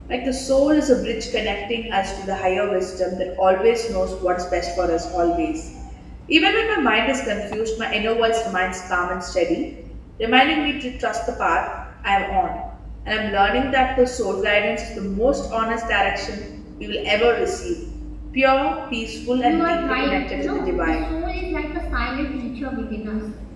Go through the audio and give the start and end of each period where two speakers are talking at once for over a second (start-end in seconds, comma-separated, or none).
19.4-21.0